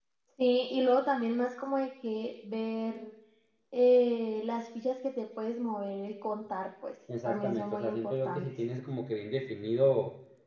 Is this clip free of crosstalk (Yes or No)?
No